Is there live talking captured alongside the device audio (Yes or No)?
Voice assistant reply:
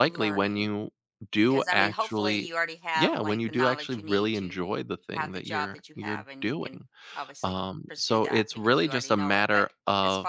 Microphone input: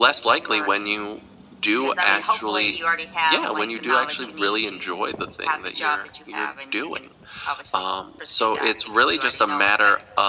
No